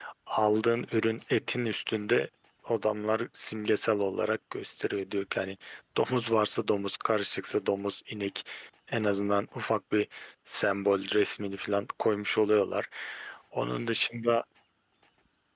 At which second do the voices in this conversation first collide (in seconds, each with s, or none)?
none